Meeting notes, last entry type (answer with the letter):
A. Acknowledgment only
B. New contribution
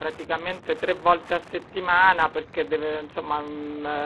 A